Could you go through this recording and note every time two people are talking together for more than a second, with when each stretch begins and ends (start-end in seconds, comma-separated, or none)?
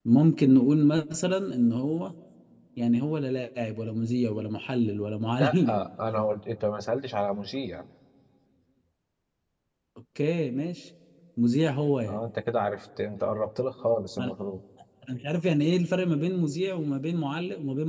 none